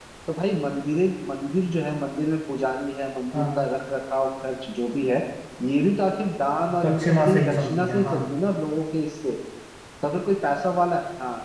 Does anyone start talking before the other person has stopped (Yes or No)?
Yes